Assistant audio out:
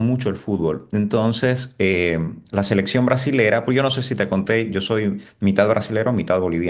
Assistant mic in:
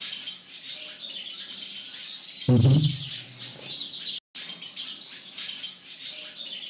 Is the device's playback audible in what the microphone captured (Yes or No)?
No